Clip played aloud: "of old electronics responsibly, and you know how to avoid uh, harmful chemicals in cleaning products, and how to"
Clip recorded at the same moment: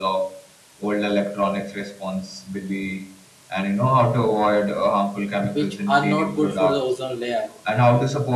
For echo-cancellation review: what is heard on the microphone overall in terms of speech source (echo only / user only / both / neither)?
both